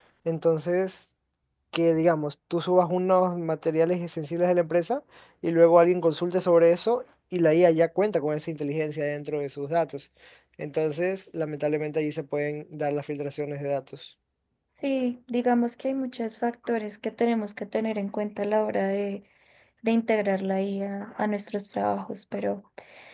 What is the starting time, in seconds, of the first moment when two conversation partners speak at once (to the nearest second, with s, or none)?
none